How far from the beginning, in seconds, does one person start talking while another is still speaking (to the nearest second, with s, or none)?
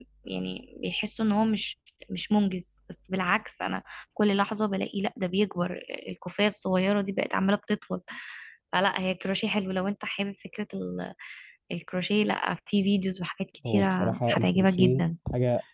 14 s